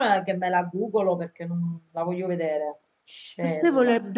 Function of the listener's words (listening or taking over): taking over